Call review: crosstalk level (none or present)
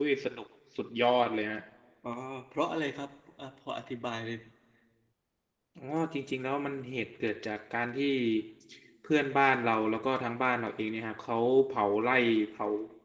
none